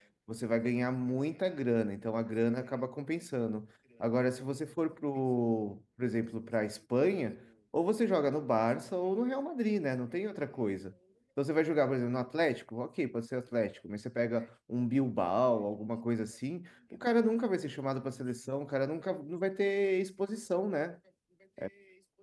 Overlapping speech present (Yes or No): No